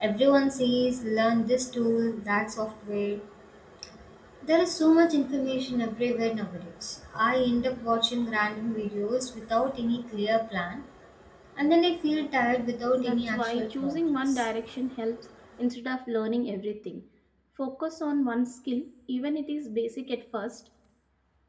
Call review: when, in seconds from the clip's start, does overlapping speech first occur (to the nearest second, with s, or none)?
13 s